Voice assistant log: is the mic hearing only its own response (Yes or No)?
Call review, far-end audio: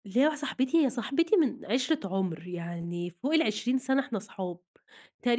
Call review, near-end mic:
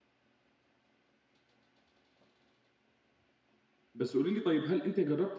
No